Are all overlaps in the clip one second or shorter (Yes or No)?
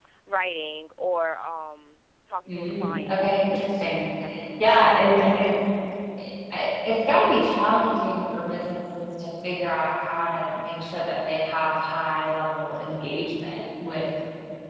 No